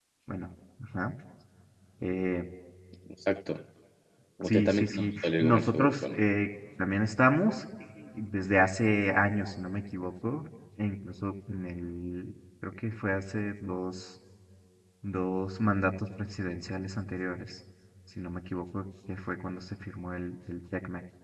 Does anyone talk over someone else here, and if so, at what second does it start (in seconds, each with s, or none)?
4.5 s